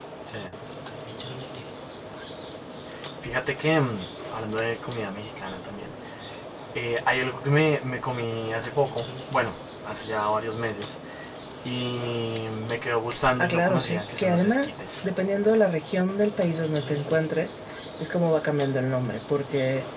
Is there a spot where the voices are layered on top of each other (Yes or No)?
Yes